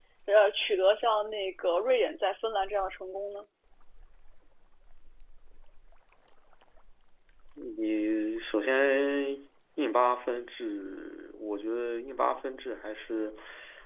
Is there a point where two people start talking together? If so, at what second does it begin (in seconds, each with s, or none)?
none